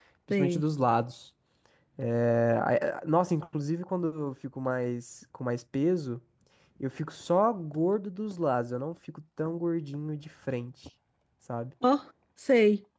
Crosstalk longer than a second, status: none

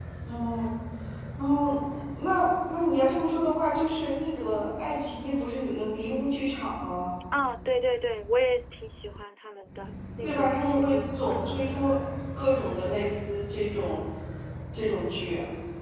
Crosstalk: present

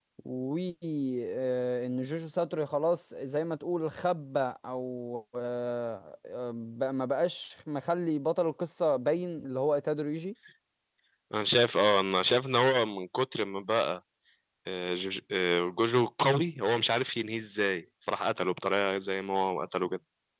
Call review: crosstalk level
none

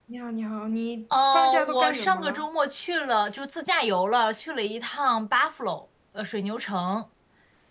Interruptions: present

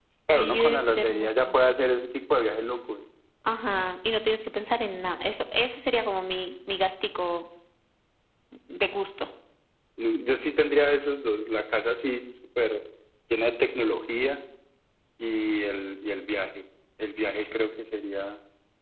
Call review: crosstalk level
present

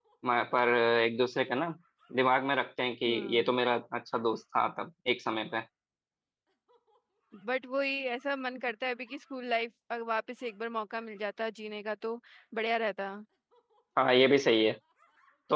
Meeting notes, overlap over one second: none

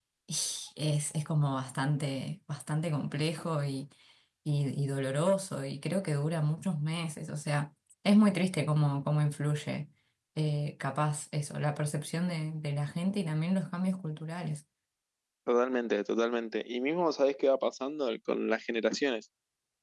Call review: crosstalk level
none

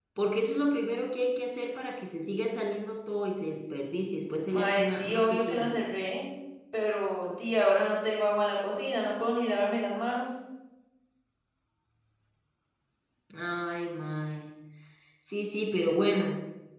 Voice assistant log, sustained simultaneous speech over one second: present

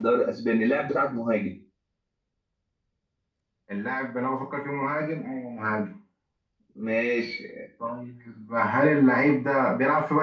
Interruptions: none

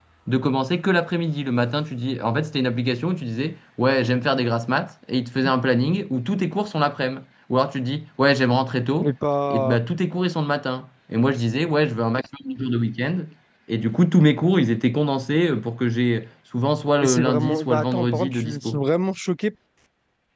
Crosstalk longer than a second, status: present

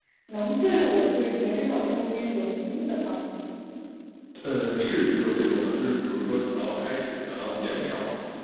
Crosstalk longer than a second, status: none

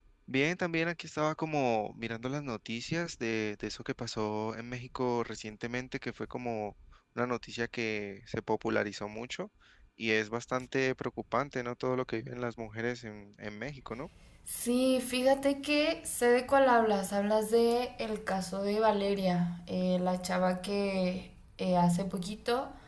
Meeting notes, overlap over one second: none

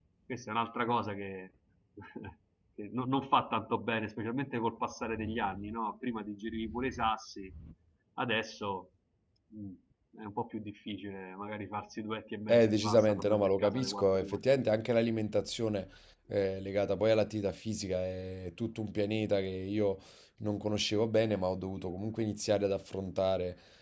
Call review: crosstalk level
present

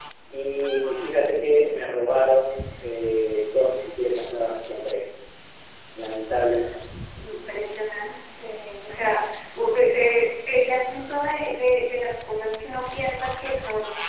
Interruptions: none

